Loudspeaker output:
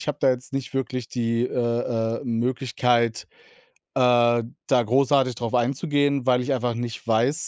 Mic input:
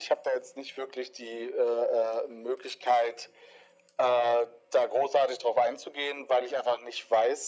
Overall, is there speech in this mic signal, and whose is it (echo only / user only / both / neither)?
echo only